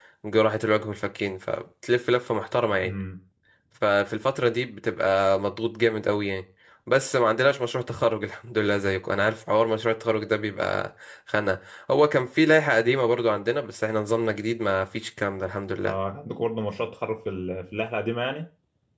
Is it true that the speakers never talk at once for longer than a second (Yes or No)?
Yes